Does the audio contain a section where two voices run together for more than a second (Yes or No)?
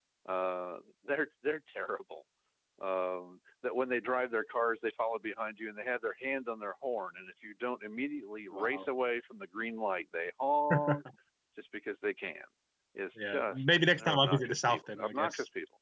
Yes